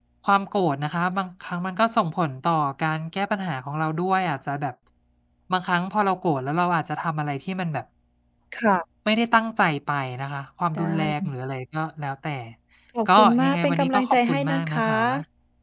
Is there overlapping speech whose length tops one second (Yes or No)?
Yes